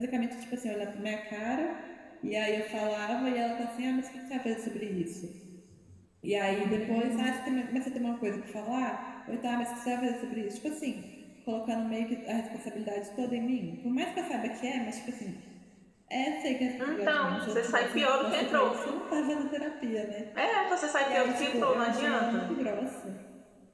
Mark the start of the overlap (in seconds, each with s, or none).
16.8 s